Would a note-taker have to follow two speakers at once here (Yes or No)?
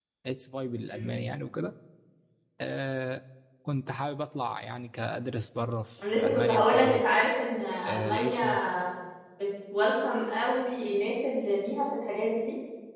Yes